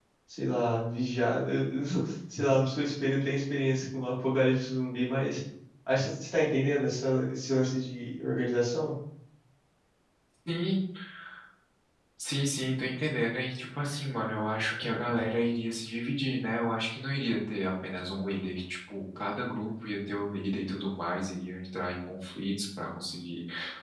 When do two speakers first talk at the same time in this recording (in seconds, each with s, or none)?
none